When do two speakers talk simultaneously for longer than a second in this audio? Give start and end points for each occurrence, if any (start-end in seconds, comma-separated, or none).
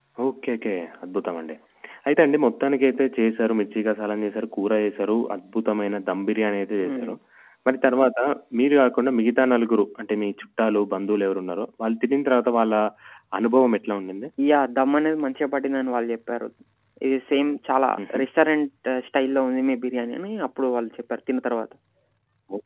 none